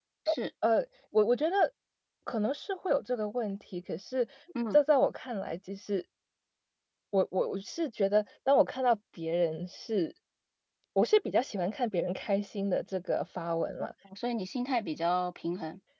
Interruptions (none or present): none